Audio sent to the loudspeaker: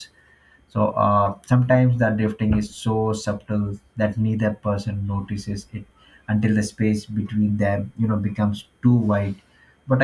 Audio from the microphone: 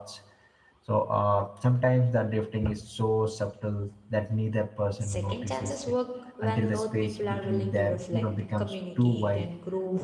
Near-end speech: present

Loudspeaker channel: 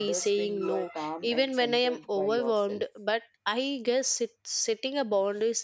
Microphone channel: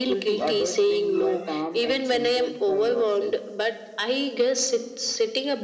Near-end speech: none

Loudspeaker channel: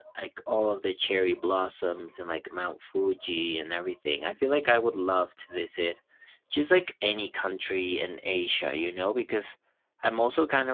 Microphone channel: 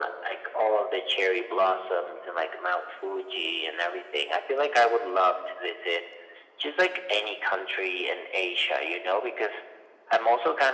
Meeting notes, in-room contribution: none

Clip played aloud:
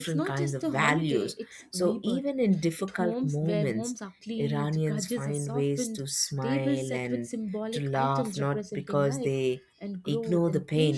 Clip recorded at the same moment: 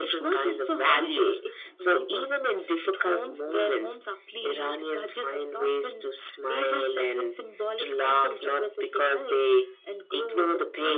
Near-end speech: none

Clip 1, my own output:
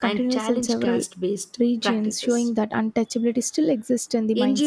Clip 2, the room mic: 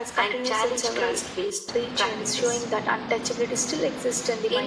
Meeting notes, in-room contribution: none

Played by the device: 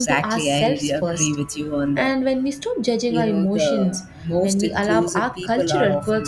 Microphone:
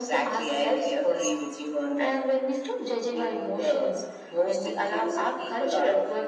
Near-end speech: none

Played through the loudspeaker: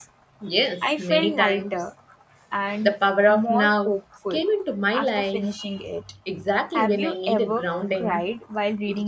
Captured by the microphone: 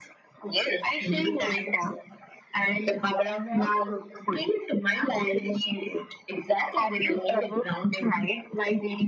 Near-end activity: none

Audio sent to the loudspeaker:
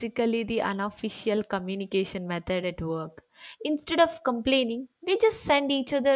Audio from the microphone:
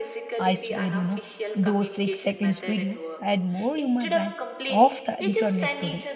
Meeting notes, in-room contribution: present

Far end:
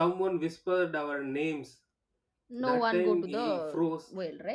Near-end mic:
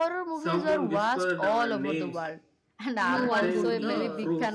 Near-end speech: present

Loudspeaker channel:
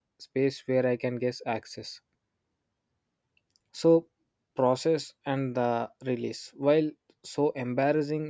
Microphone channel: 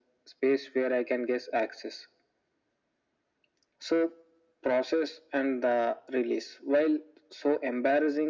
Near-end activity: none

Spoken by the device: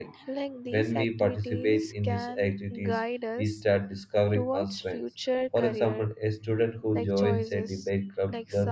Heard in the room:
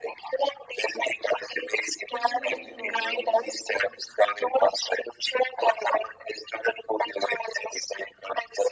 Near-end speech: present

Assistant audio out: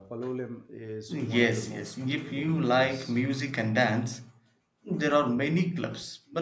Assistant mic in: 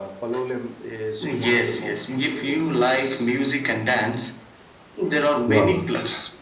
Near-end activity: present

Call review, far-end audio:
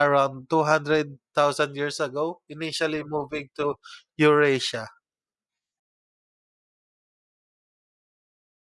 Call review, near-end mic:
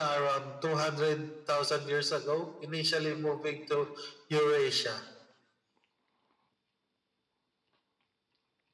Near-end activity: none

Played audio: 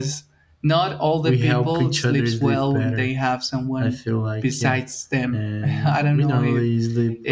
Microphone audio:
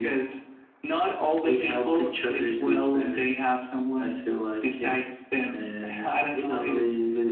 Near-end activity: none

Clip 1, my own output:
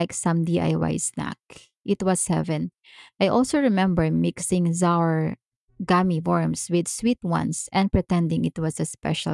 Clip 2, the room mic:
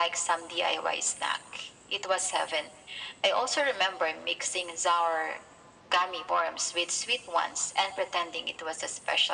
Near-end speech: none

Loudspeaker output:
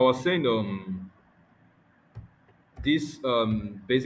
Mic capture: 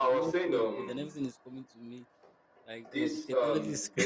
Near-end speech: present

